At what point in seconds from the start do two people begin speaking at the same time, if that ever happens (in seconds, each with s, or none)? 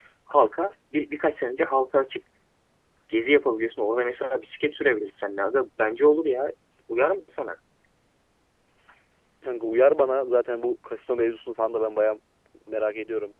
none